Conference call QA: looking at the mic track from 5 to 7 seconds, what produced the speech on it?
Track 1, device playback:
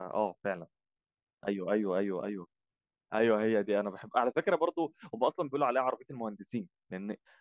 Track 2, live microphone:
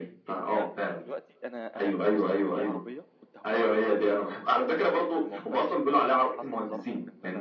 both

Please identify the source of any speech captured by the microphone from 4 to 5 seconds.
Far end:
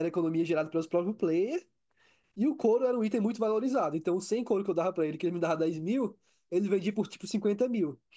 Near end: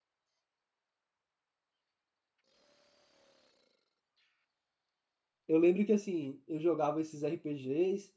neither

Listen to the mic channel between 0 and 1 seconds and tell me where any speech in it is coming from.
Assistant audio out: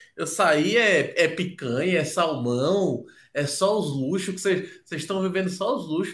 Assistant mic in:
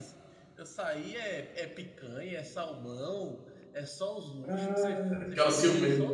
echo only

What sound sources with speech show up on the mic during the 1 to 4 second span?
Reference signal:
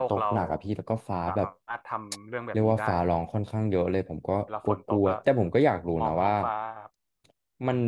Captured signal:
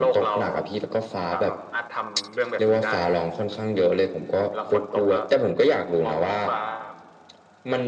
echo only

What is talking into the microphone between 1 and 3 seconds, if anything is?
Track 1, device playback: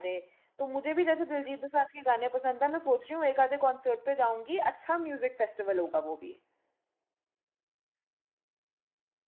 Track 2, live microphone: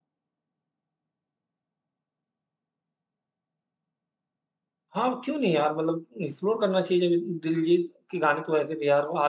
neither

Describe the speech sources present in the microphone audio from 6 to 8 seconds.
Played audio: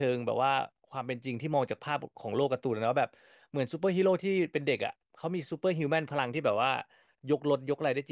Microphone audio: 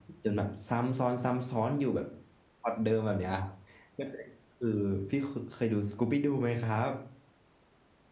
user only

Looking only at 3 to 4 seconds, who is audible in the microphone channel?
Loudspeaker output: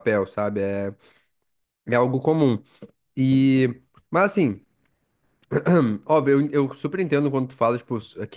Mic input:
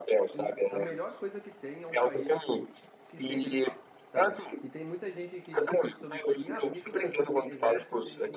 both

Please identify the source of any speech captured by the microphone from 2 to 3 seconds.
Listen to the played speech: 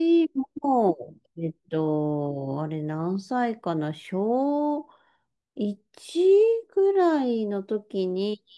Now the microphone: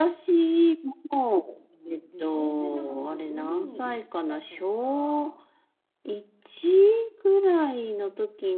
both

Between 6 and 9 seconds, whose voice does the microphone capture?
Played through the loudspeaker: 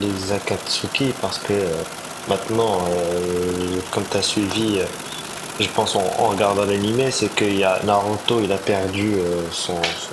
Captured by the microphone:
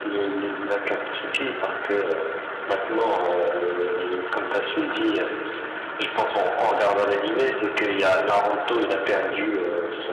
echo only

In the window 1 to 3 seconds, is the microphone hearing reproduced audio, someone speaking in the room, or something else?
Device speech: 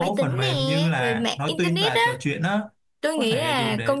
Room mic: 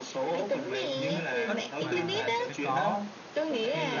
both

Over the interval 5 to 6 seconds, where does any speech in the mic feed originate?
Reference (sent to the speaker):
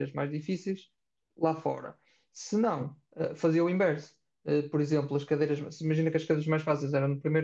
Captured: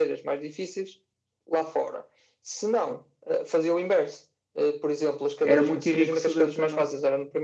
both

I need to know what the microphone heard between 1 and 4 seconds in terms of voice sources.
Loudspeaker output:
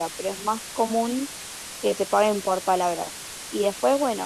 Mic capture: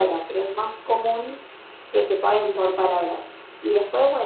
echo only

